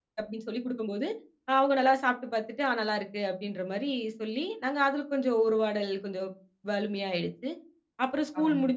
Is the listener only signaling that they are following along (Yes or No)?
Yes